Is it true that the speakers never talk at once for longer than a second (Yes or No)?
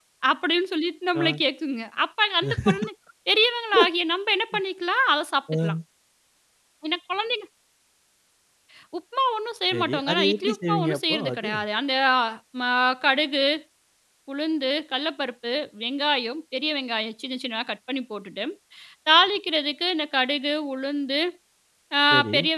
No